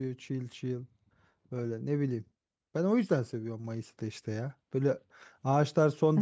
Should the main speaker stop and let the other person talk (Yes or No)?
No